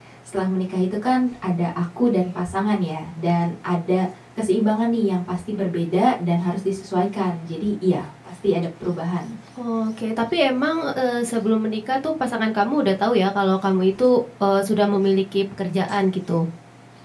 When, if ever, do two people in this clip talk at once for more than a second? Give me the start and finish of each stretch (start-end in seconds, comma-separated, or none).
none